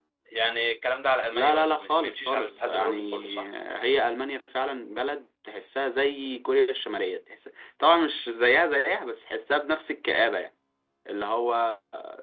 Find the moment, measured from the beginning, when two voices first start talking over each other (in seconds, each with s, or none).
1.3 s